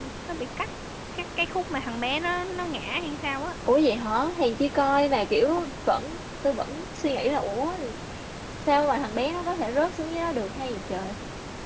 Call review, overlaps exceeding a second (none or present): none